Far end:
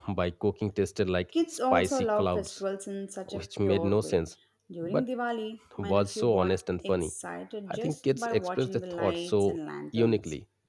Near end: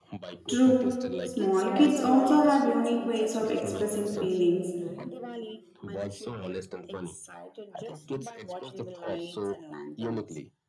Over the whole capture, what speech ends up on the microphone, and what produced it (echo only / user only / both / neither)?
both